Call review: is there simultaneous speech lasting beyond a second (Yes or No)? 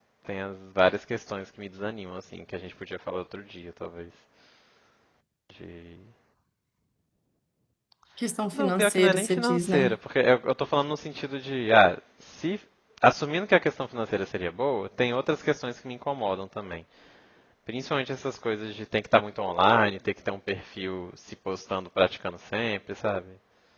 Yes